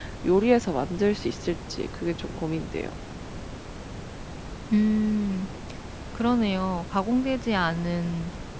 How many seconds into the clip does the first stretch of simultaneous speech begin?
none

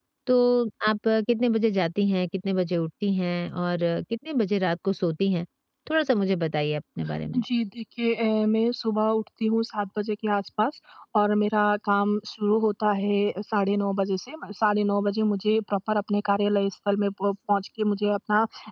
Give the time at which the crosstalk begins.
none

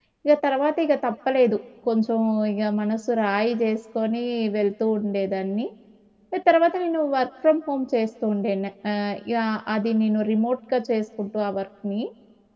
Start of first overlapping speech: none

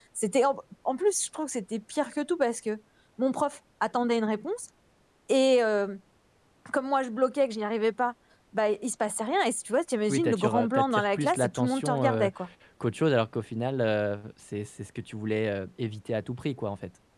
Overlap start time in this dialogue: 10.1 s

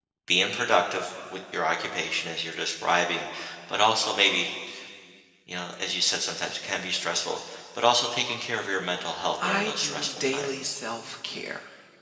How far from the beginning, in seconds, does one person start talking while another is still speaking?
9.4 s

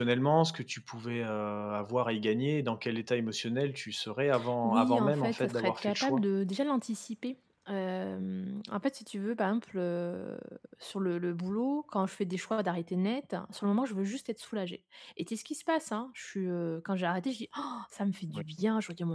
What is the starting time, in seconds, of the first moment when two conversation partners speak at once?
4.6 s

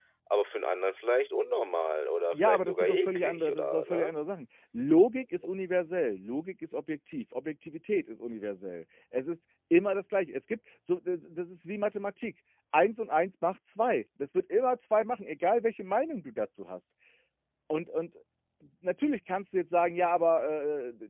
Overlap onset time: 2.3 s

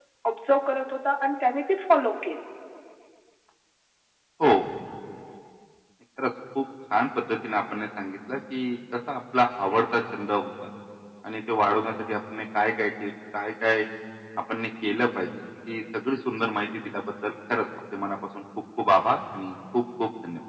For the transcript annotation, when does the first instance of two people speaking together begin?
none

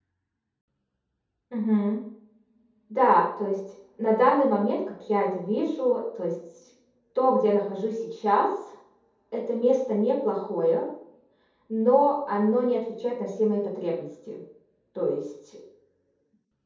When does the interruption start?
none

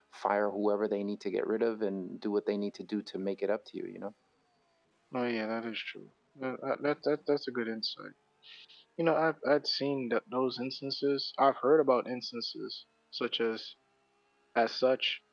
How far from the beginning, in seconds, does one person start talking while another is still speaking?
none

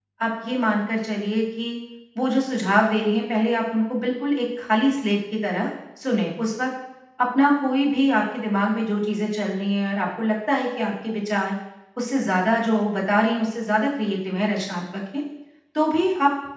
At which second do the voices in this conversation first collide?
none

